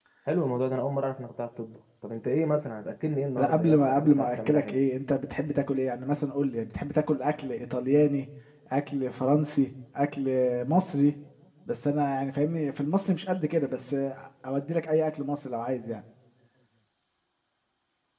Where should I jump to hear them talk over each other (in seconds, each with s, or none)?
3.4 s